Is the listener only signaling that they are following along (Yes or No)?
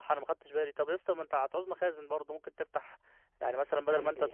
Yes